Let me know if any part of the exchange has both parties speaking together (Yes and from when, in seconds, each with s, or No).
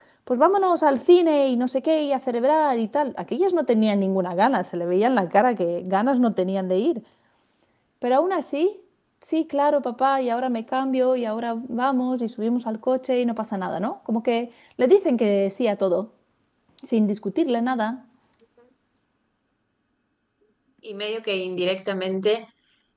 No